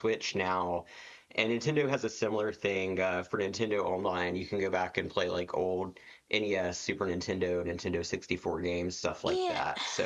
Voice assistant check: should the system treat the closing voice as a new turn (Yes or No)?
Yes